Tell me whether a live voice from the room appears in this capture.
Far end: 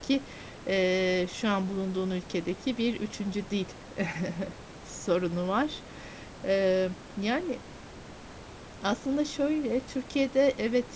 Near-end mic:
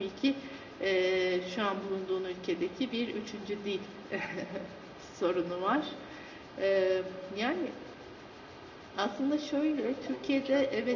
Yes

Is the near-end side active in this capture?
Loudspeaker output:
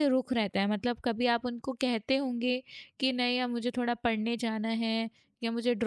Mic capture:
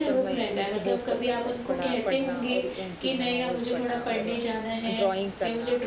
Yes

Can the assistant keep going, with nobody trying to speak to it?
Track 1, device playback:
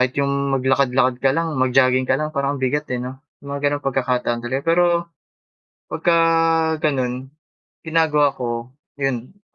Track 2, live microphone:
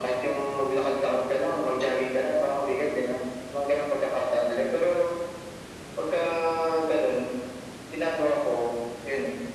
Yes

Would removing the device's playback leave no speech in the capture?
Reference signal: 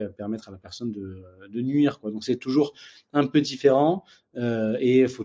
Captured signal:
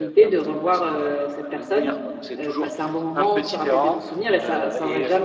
No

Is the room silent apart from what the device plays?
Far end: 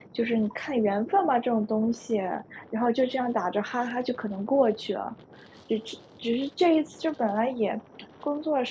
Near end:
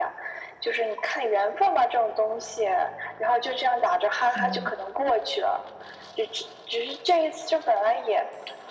No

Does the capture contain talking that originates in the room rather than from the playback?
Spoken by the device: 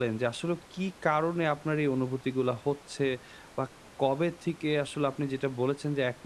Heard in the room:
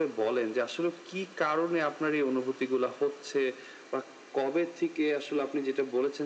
No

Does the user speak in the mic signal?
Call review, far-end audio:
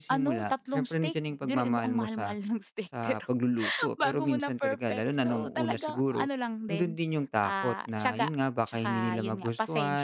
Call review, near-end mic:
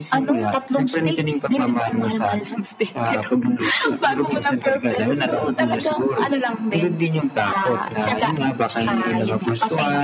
No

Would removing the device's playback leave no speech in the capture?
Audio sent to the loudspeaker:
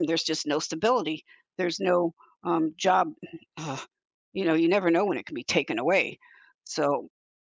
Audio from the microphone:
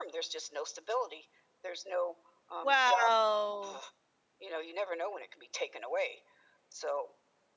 No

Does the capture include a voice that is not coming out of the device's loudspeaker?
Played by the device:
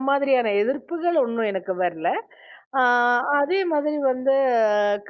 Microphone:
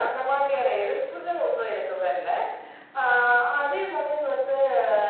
No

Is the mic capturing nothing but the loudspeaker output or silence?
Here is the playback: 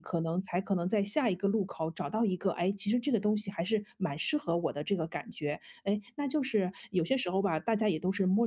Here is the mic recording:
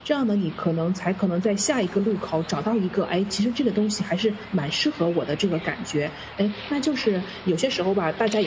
Yes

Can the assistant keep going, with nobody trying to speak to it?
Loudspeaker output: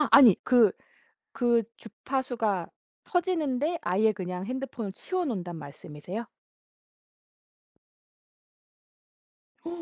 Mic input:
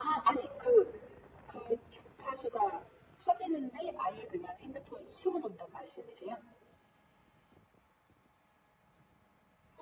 Yes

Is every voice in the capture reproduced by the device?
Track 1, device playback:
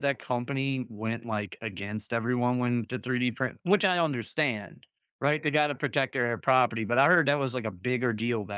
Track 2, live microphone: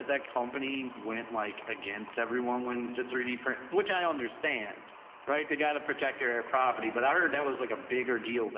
Yes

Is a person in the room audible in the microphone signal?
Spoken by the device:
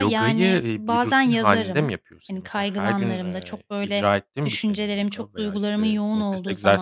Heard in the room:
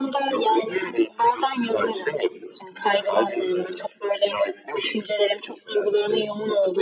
No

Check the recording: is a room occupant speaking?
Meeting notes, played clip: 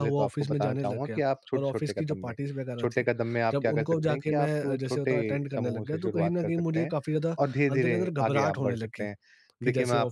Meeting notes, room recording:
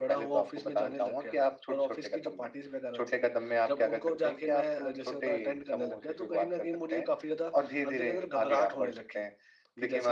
No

